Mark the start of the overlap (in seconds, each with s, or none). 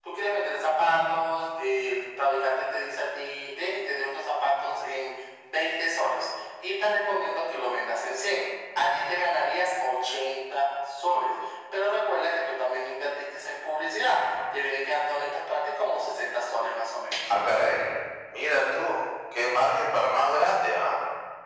none